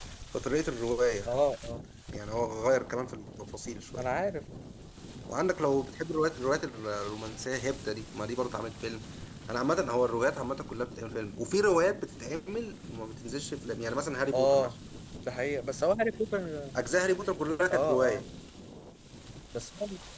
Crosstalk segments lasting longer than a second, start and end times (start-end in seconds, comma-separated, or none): none